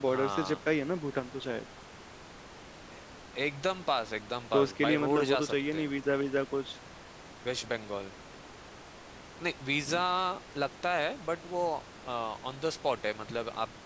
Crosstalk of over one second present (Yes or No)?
Yes